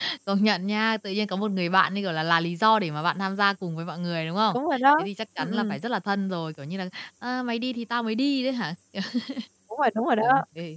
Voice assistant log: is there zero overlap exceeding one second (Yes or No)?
Yes